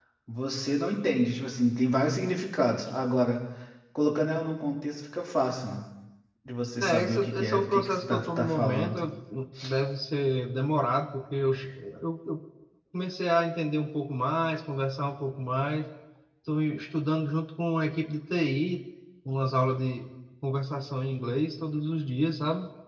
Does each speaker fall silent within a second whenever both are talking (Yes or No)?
No